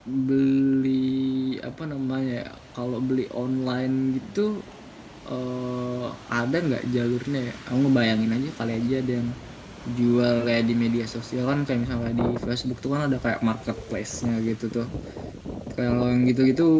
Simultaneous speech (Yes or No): No